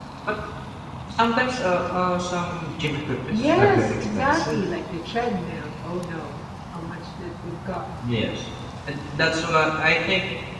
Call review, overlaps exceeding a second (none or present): present